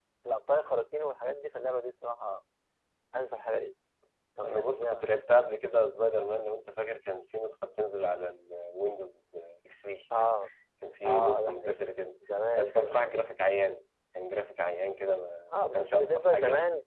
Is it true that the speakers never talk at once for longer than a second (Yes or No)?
No